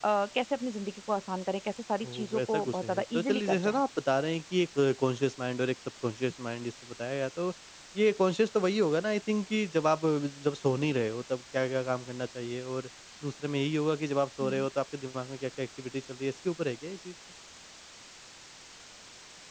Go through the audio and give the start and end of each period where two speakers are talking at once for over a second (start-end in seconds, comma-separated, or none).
2.0-3.8